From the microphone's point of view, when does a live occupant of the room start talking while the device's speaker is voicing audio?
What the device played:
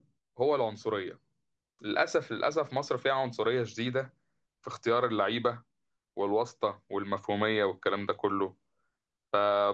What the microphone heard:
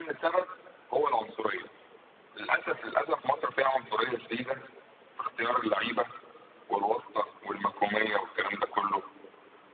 none

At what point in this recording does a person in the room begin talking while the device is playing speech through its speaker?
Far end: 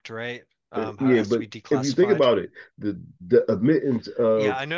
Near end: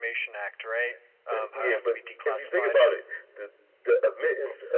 none

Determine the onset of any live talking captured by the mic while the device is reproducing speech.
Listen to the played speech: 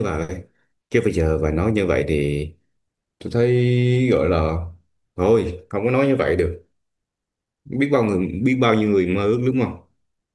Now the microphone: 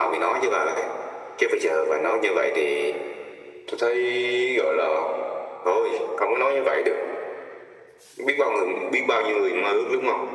none

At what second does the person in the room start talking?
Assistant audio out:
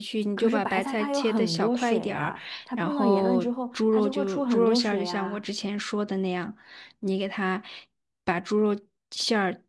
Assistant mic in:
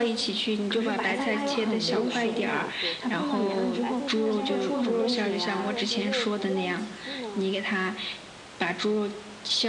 0.7 s

